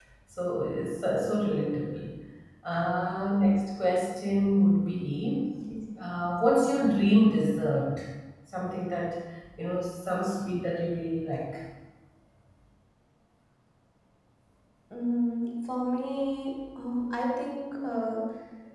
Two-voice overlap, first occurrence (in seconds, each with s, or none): none